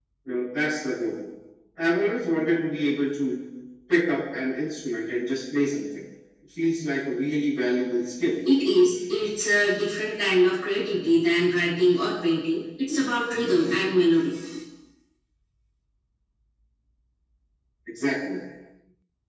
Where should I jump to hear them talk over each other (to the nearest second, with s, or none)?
none